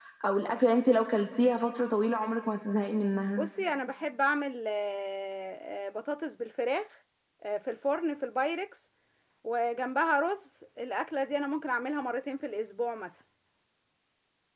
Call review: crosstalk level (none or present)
none